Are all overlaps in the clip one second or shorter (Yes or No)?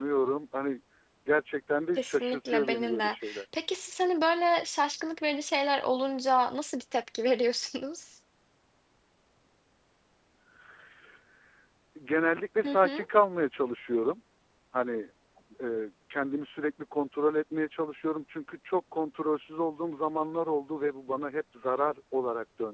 No